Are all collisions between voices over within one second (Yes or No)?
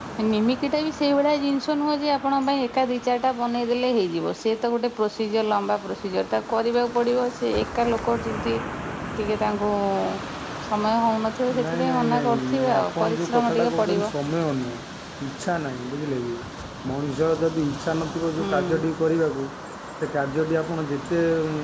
No